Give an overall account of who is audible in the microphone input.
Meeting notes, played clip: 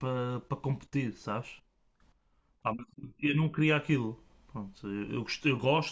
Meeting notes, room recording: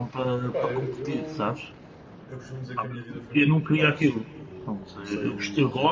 both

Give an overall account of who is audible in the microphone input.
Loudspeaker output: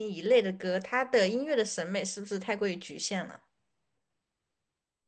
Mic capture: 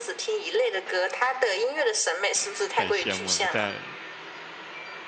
both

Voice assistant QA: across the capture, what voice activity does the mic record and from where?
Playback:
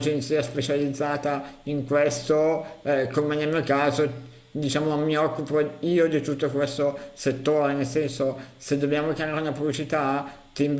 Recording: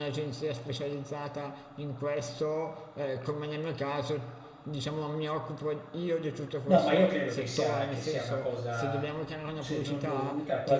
both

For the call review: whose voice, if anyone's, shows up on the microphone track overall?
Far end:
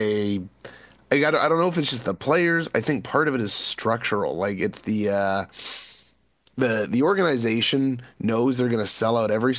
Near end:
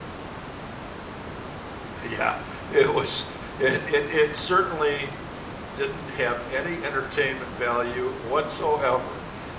user only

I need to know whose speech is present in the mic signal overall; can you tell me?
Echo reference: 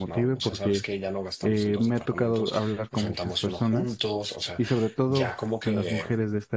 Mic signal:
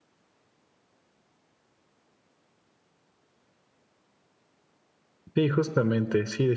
user only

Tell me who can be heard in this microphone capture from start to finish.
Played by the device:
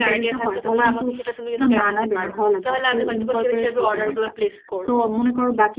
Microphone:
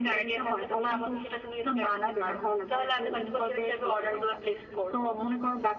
echo only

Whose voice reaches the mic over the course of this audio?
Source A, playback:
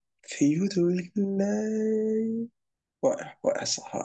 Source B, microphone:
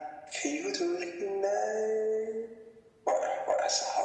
echo only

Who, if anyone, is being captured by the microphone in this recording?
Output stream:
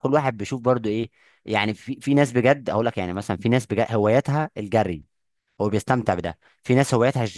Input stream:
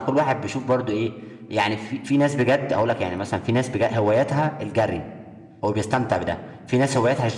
echo only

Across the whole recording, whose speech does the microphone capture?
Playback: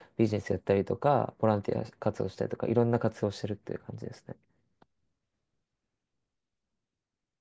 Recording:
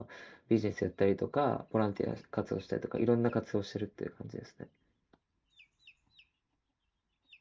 echo only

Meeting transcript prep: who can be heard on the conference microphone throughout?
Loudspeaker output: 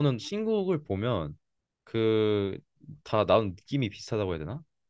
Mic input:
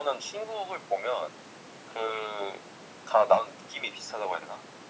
echo only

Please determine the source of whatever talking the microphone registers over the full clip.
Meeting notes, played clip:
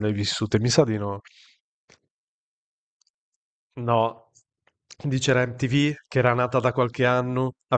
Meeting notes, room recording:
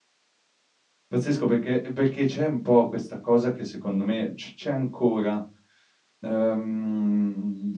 user only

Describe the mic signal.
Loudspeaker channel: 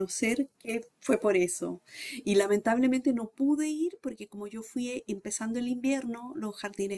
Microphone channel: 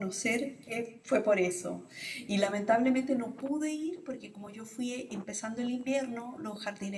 both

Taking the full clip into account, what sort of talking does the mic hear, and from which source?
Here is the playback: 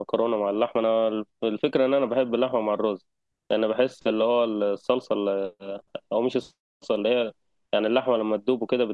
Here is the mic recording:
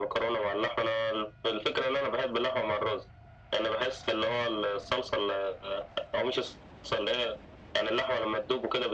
echo only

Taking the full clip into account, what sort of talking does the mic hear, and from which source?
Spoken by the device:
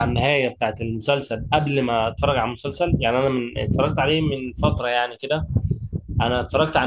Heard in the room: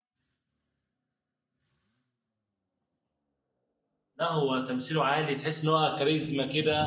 user only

